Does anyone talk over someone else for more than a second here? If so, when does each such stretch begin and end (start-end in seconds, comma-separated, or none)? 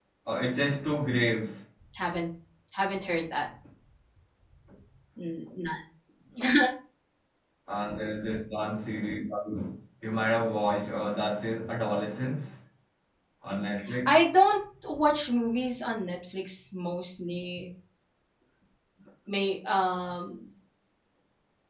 none